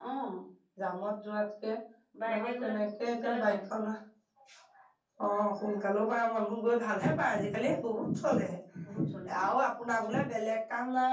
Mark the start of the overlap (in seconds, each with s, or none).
2.3 s